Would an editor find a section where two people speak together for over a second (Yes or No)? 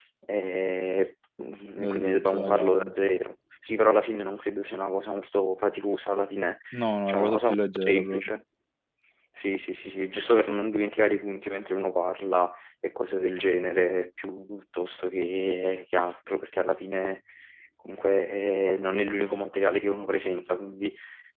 Yes